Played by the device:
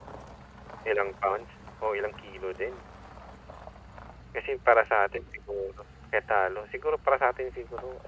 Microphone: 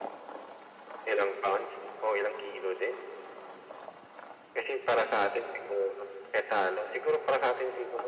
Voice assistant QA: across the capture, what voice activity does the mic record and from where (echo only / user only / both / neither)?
echo only